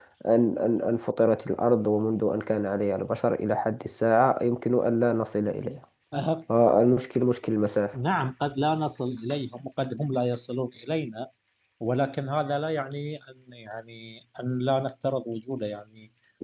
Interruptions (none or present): none